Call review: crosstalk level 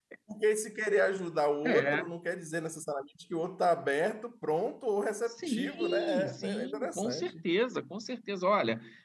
present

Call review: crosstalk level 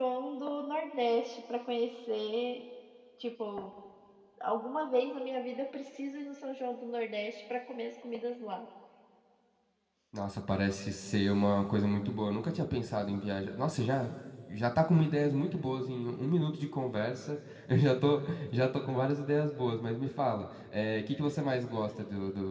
none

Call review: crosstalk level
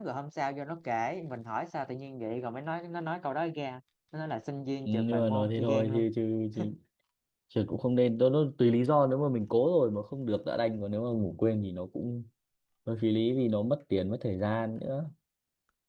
present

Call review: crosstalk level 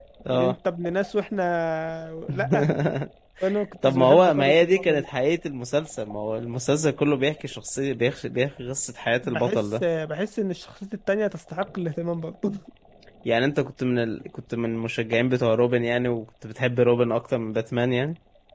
present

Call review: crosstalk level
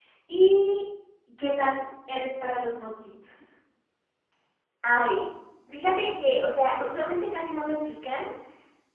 none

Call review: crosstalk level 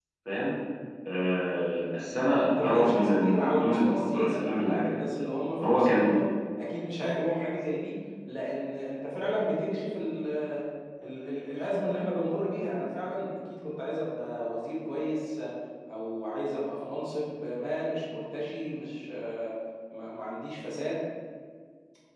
present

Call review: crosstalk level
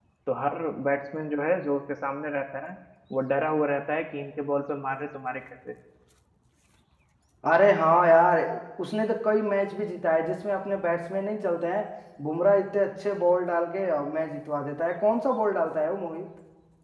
none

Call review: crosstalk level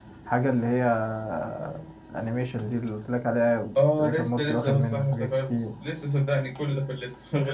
present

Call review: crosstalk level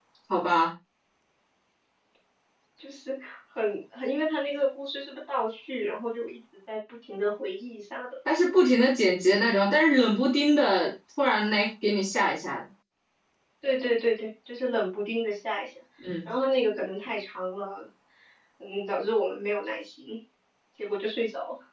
none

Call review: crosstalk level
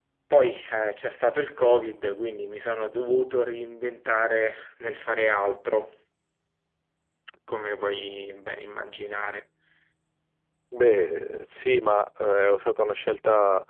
none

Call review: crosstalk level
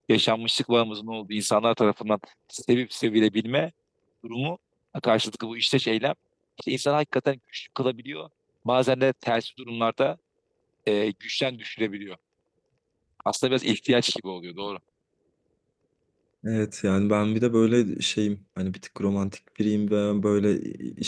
none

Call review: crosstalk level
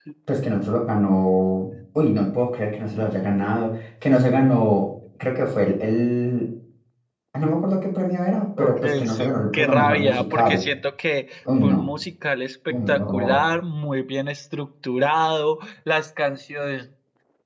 present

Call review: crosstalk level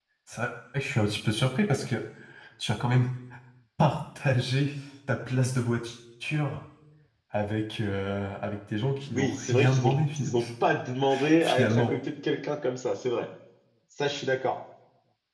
present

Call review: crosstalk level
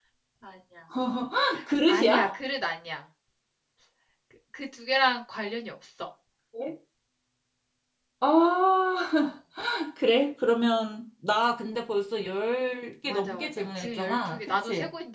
present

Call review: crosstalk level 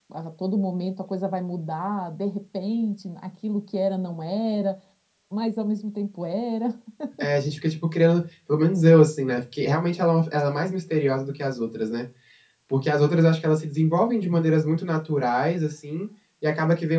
none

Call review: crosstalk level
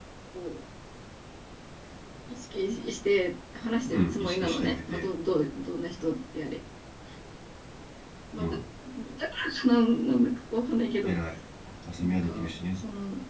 present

